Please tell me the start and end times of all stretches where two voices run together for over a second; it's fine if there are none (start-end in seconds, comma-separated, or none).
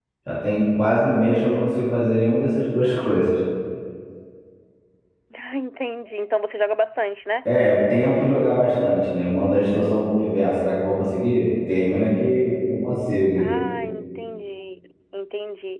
none